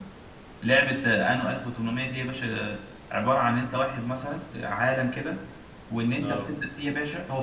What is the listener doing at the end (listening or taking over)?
listening